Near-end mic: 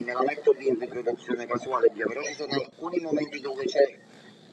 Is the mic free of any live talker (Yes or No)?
Yes